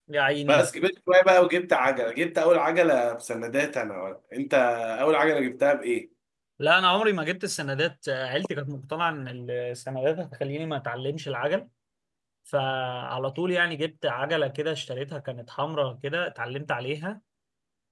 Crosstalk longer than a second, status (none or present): none